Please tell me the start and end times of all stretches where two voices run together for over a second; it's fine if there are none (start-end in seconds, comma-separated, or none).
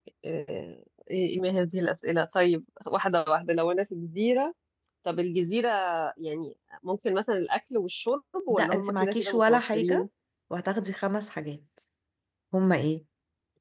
8.5-10.1